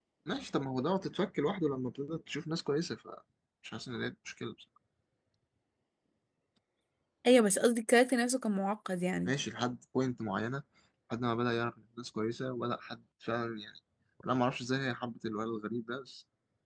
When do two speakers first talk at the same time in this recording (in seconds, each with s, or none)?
none